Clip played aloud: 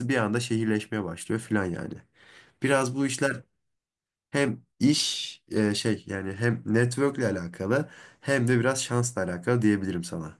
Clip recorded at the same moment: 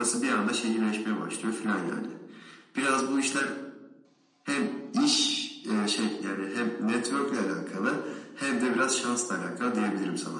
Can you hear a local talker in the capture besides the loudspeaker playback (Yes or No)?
No